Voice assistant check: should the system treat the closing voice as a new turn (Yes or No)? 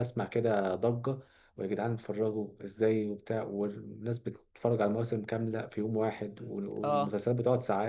No